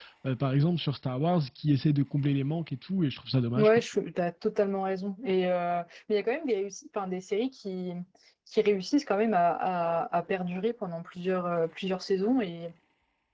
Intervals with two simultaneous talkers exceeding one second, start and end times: none

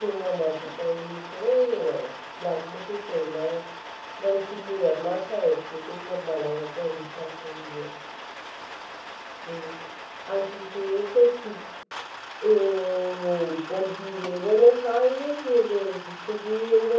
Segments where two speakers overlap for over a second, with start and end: none

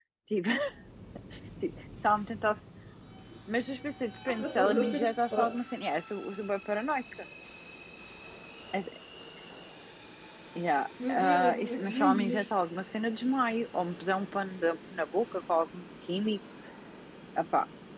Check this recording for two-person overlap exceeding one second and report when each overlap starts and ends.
4.3-5.6, 11.1-12.5

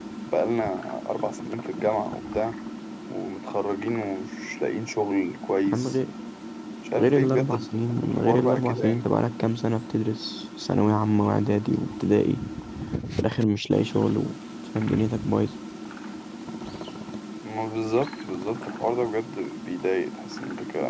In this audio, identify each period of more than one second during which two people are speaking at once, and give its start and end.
7.0-9.1

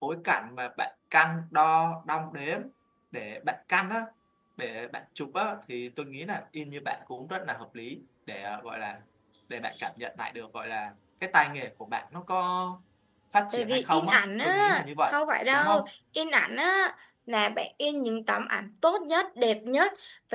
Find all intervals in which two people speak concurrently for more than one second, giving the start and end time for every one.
13.5-15.1

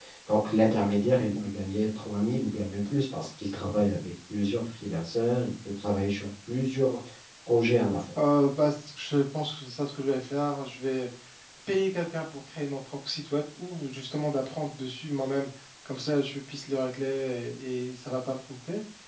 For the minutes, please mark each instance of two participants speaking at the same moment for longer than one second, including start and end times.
none

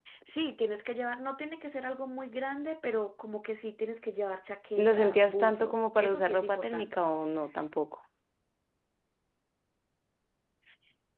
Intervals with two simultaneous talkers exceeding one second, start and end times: 4.8-6.9

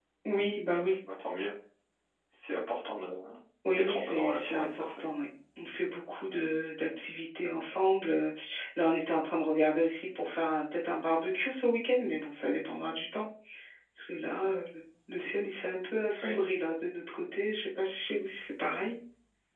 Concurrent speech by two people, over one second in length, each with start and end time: 3.8-5.1

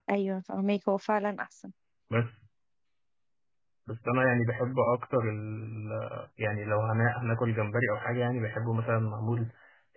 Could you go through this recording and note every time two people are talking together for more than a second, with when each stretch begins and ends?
none

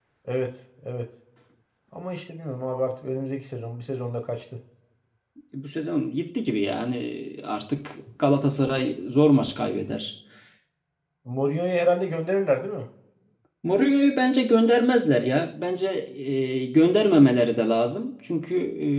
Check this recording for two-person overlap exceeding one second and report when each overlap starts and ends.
none

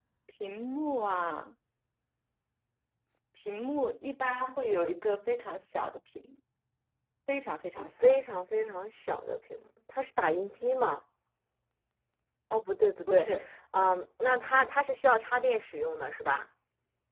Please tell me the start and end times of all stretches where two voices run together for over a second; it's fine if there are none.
none

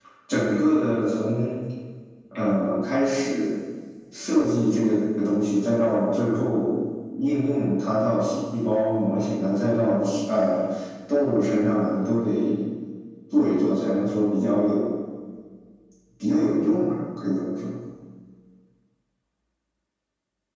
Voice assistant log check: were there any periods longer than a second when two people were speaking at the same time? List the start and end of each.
none

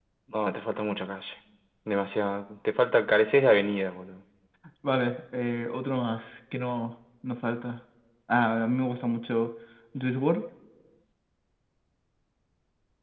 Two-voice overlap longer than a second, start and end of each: none

